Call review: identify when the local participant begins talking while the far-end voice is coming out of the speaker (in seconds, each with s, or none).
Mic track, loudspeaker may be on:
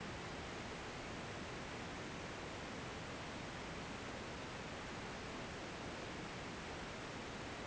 none